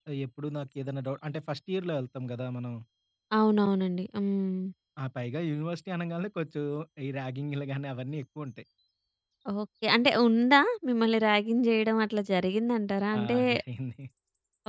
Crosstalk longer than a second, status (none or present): none